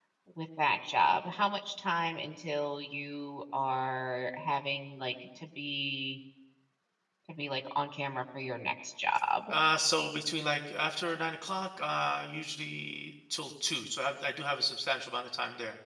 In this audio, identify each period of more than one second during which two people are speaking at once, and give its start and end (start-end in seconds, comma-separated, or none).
none